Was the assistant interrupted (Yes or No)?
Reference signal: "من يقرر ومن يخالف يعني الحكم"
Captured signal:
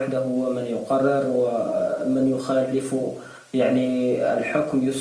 No